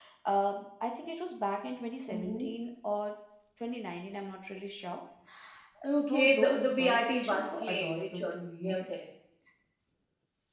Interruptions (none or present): present